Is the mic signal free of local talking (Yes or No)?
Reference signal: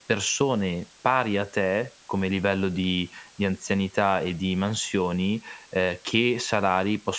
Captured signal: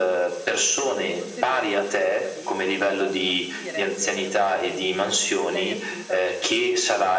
No